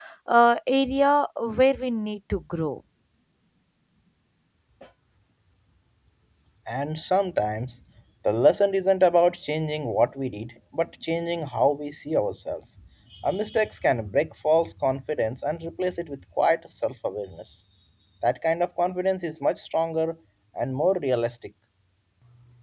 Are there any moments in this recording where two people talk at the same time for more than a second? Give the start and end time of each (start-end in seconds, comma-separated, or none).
none